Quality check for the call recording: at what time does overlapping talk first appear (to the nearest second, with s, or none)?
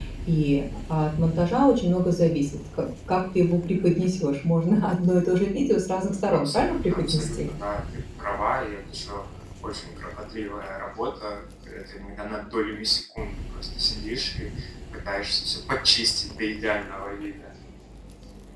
6 s